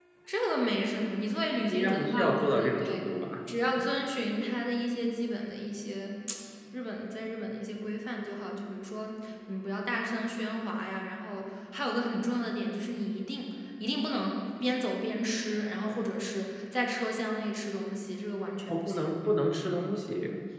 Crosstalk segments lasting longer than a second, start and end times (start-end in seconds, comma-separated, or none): 1.6-3.0